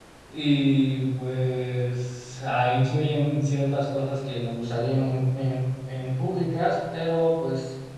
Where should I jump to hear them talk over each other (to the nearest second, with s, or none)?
none